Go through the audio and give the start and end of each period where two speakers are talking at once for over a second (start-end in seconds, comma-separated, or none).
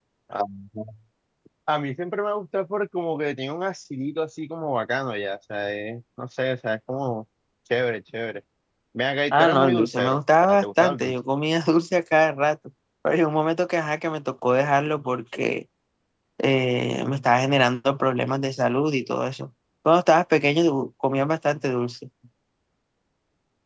9.3-11.1